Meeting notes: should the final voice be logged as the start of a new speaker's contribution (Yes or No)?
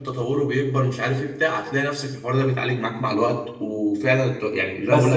Yes